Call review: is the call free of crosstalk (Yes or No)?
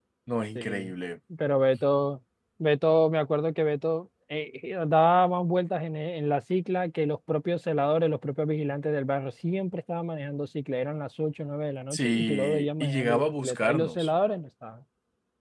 No